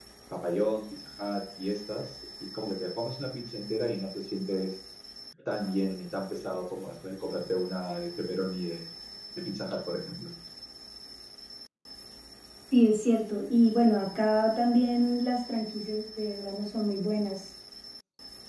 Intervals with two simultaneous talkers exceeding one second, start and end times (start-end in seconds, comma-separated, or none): none